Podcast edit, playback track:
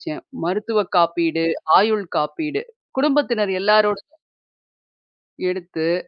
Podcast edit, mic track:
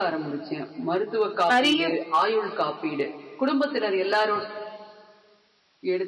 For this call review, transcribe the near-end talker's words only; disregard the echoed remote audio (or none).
நெறைய